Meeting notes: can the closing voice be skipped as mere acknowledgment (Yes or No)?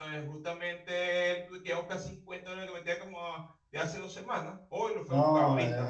No